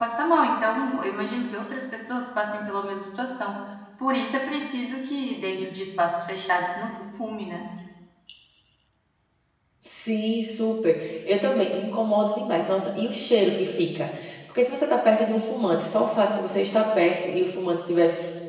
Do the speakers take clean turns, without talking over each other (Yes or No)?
Yes